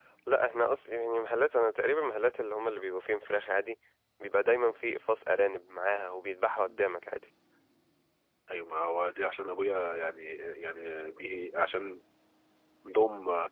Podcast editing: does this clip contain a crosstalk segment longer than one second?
No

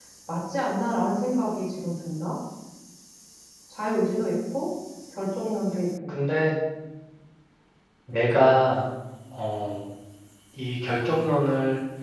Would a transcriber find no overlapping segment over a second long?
Yes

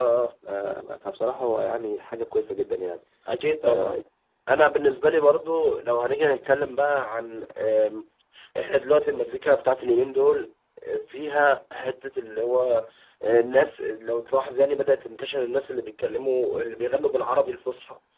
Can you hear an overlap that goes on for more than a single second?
No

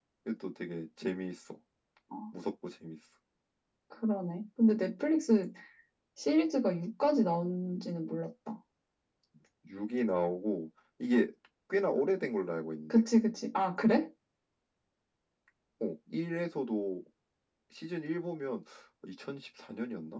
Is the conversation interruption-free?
Yes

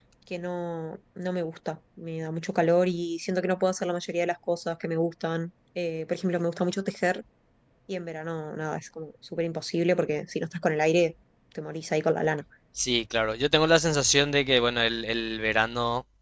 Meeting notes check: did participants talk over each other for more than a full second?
No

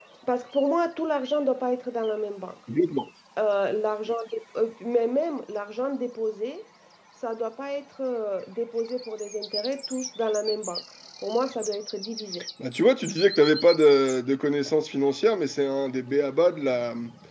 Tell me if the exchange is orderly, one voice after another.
Yes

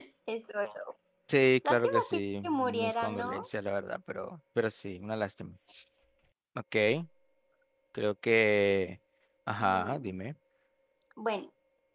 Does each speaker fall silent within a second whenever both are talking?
No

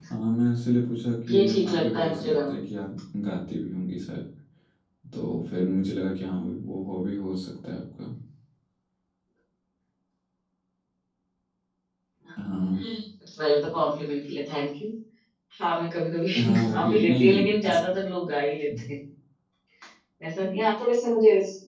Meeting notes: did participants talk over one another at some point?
Yes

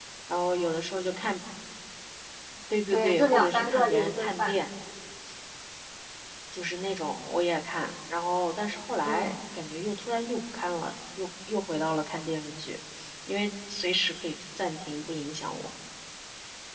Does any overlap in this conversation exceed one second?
Yes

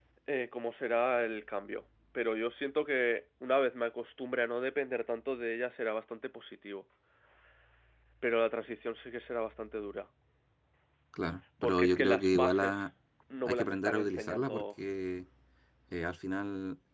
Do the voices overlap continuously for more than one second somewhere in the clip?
Yes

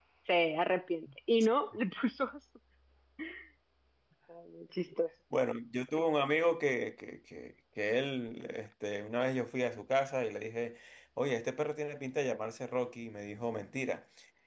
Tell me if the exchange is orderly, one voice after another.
Yes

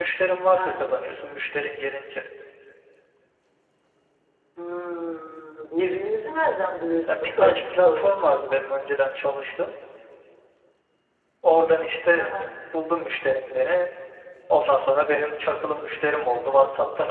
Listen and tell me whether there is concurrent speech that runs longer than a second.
Yes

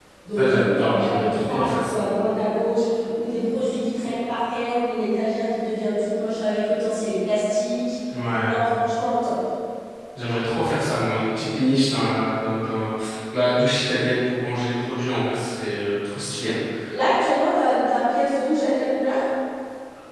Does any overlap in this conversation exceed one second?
Yes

